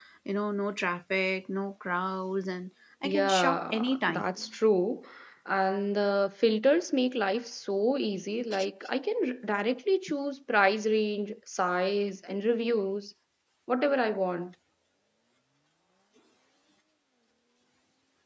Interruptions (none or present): present